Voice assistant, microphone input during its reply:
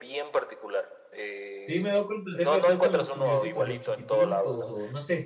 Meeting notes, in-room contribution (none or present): present